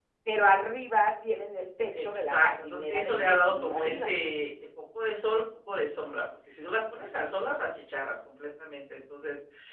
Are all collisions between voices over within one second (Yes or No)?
No